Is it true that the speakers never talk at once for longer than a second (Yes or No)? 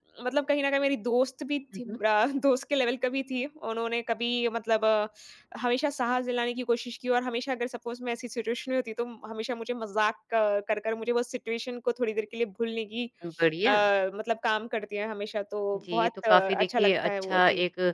No